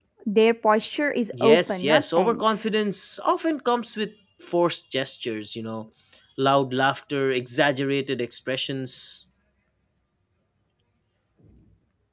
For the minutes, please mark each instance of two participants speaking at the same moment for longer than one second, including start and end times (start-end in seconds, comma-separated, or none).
1.4-2.7